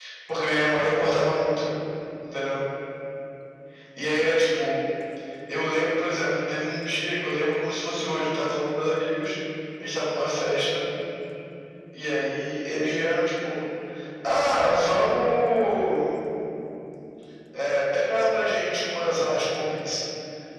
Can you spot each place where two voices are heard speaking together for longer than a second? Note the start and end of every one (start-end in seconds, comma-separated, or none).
none